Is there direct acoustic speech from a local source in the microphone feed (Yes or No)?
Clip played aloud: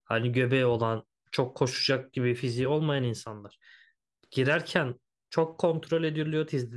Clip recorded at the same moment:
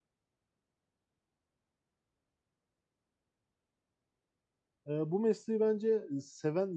Yes